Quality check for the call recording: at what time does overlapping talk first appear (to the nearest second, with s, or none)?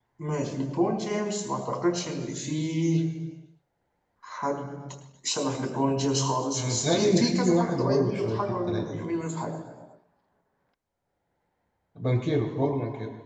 7 s